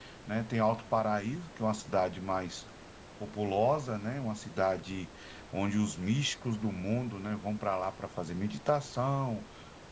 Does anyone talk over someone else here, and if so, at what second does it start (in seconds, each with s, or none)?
none